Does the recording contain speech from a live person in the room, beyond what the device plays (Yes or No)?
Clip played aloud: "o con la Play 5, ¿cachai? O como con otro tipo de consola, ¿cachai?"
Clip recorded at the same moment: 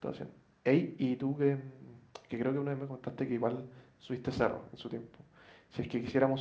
Yes